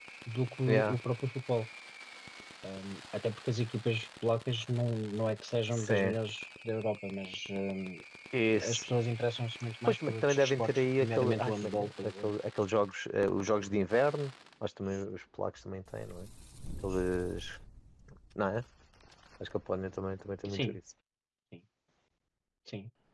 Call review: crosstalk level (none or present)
present